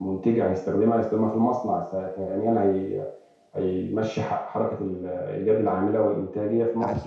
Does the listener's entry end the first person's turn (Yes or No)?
Yes